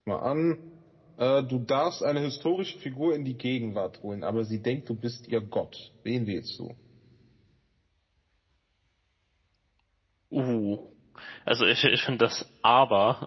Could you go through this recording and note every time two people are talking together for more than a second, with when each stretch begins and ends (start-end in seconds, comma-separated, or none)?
none